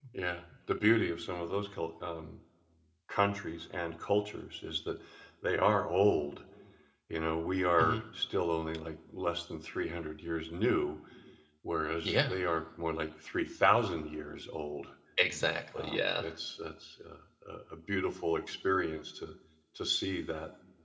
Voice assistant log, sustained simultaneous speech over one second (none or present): none